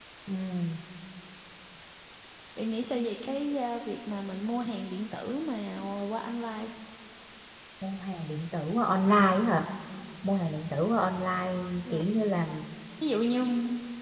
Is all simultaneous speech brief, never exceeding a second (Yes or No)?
Yes